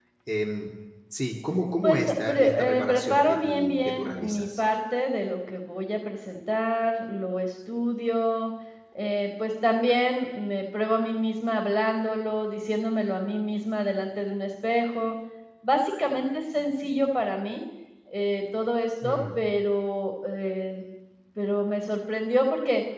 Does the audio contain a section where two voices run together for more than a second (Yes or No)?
Yes